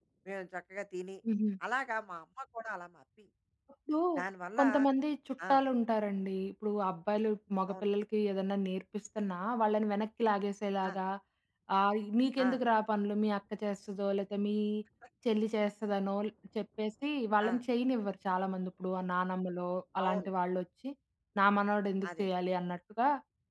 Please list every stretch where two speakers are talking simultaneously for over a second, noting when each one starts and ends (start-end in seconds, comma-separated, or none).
none